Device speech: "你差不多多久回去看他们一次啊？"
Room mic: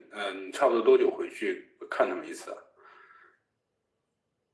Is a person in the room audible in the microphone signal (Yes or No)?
No